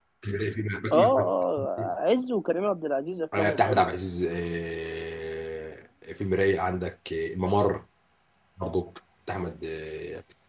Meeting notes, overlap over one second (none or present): none